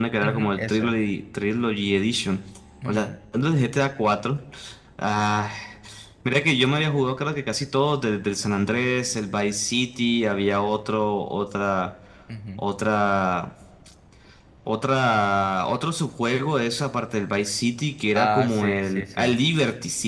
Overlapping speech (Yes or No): Yes